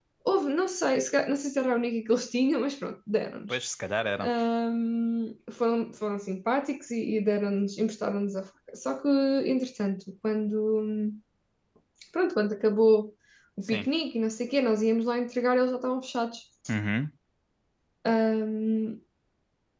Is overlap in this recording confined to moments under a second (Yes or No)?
Yes